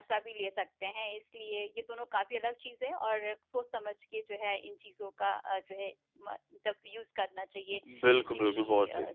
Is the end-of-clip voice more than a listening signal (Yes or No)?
Yes